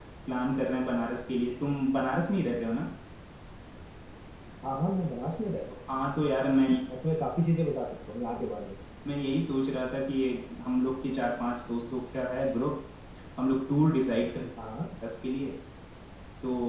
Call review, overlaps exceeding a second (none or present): none